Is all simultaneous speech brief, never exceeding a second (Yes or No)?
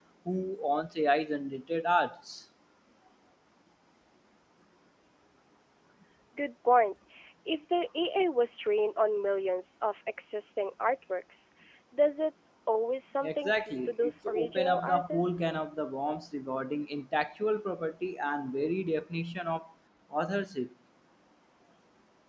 No